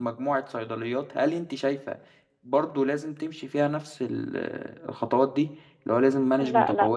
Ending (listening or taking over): taking over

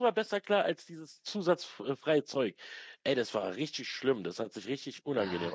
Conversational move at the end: taking over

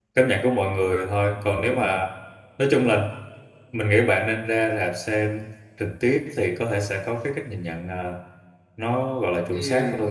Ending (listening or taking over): taking over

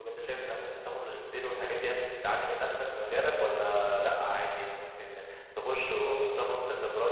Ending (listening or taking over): listening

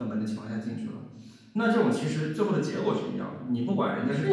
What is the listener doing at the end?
taking over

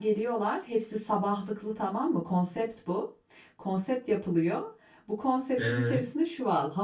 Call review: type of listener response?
listening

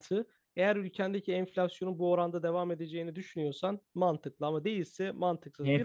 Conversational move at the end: listening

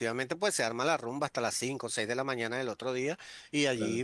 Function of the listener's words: listening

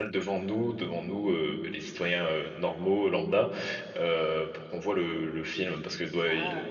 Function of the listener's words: taking over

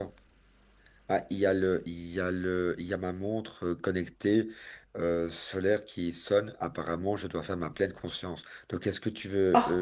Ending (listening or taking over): listening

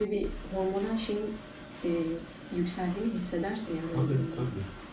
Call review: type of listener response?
taking over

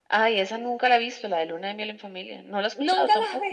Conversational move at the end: taking over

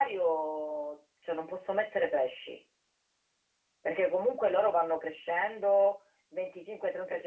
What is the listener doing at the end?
listening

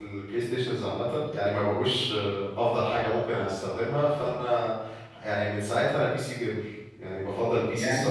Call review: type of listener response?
taking over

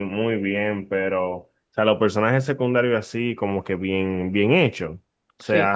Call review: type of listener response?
listening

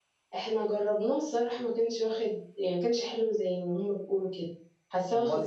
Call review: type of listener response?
taking over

